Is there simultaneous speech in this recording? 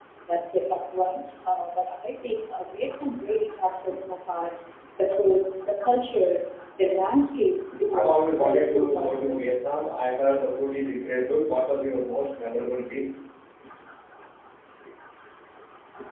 Yes, from 7.9 s

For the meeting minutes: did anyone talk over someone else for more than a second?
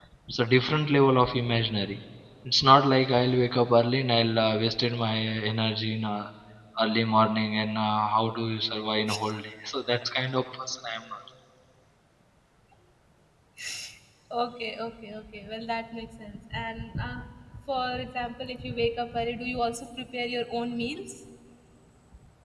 No

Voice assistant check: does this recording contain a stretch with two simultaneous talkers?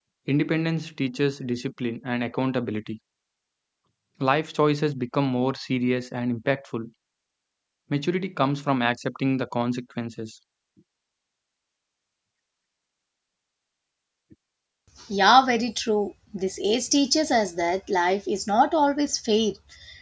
No

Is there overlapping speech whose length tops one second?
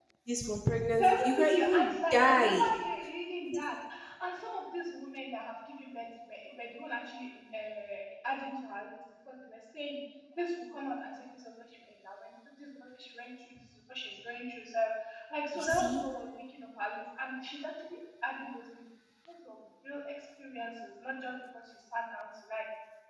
Yes, from 0.9 s

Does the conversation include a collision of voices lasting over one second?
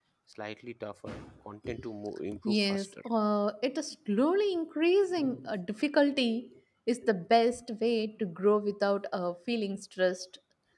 No

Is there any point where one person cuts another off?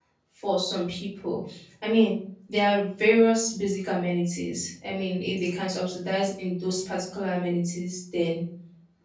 No

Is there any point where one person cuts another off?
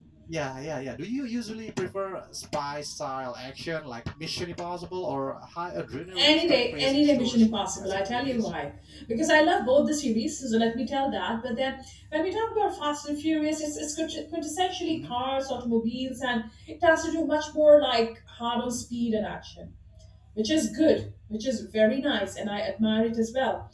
Yes, from 6.1 s

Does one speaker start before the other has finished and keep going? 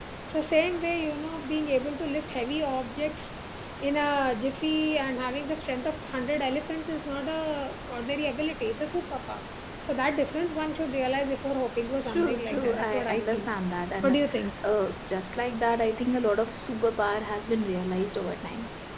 Yes, from 12.0 s

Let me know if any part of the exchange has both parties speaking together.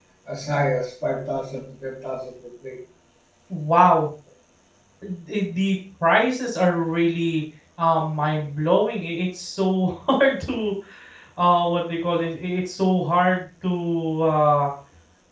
No

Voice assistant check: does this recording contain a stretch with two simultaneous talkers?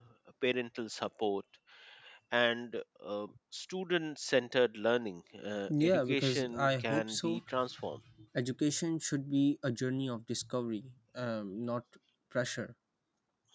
Yes, from 5.7 s

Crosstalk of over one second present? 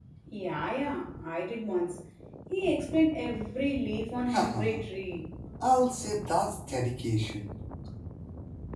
No

